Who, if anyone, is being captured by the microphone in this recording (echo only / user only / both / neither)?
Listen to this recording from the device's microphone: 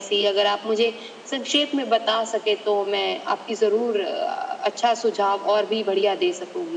echo only